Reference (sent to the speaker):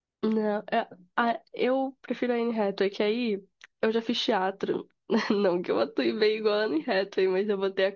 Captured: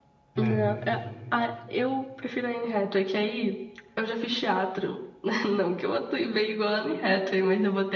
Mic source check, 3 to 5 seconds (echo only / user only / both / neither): echo only